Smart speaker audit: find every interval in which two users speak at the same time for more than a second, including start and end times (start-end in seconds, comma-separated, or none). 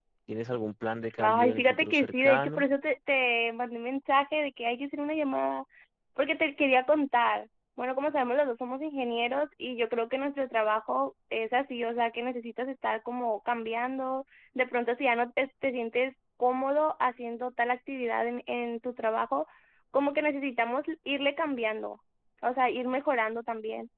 1.2-2.6